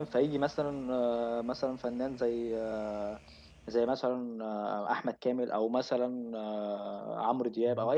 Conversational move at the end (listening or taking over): listening